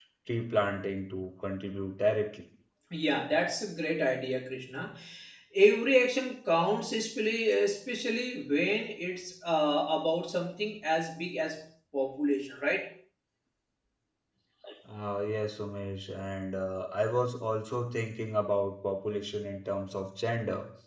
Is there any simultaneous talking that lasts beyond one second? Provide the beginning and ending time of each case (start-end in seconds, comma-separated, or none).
none